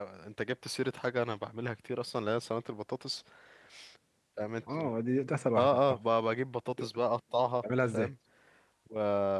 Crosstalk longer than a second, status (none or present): none